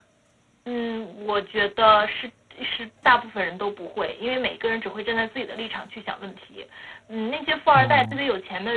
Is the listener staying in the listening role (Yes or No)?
Yes